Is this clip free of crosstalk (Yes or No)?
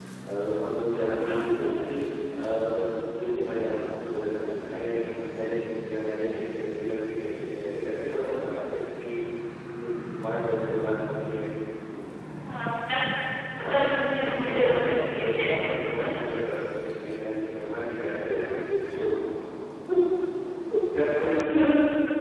No